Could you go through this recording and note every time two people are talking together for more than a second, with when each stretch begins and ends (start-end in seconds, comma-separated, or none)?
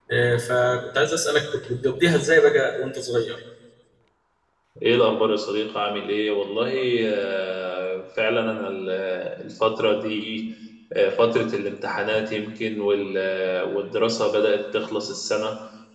none